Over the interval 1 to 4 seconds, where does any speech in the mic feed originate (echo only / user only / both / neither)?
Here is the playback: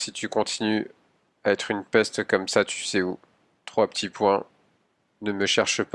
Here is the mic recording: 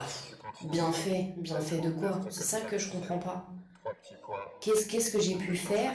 both